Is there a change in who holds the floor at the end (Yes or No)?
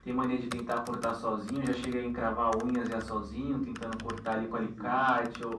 No